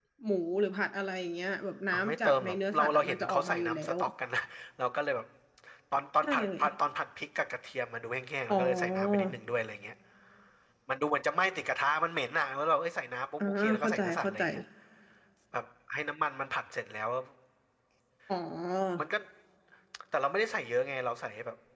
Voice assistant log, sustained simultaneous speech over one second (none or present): present